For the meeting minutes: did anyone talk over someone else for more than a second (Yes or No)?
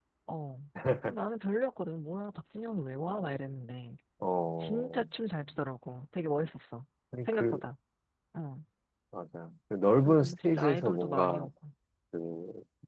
Yes